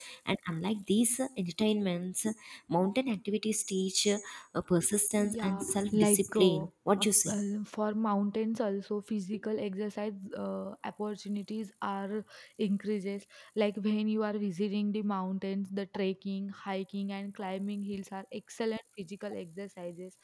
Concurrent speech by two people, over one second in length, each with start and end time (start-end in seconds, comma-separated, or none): 5.2-6.7